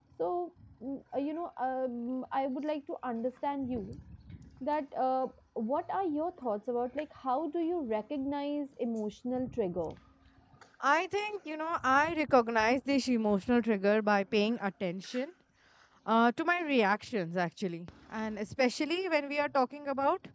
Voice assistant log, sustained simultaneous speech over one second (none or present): none